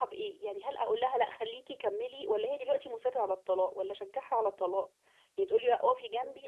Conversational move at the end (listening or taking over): listening